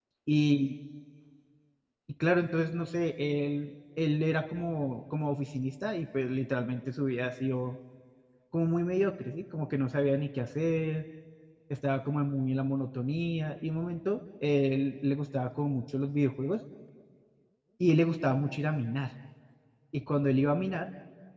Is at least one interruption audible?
No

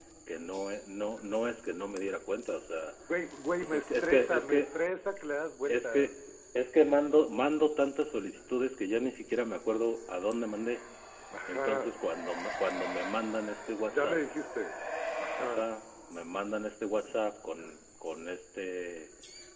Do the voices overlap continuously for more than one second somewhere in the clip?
Yes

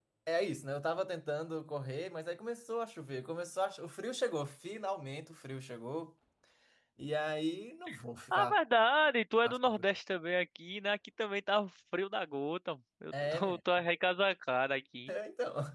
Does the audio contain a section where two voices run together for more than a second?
No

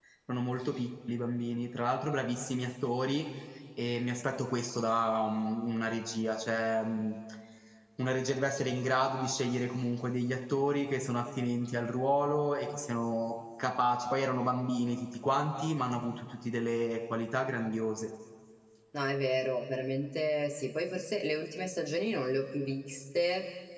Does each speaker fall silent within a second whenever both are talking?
Yes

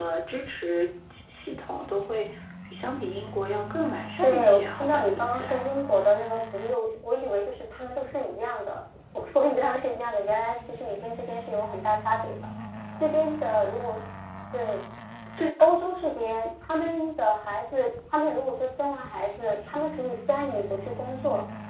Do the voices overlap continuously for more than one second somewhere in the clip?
Yes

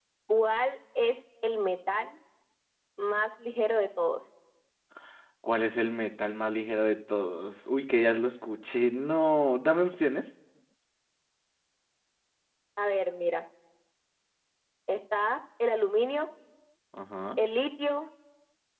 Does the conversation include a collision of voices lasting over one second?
No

